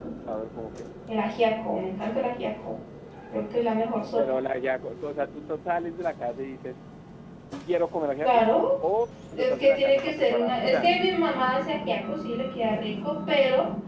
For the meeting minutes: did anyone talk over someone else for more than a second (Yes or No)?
Yes